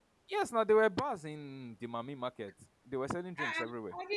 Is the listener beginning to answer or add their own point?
Yes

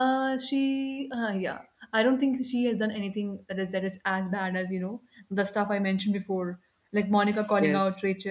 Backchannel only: Yes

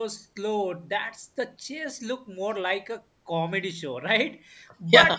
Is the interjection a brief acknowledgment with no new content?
Yes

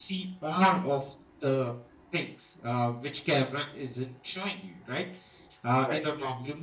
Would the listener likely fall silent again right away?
Yes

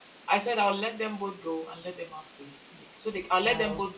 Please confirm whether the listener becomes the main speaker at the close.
No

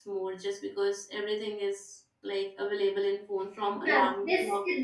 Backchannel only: No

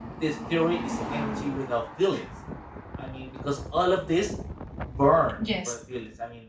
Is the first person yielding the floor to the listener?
No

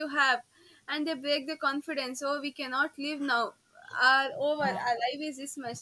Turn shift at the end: No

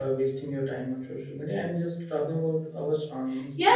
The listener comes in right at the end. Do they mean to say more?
Yes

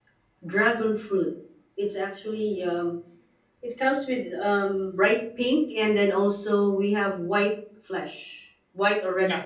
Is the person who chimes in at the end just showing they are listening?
No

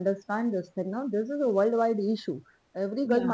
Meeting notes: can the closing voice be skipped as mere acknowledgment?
Yes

